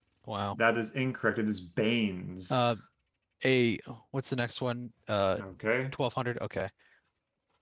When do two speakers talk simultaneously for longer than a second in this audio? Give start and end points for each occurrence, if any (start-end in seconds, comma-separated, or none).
none